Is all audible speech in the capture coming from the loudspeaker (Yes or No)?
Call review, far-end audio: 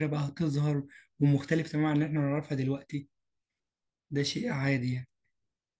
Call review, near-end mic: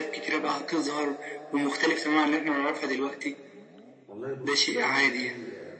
No